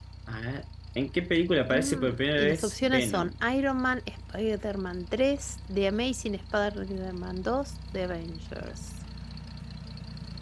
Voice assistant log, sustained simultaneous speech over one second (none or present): present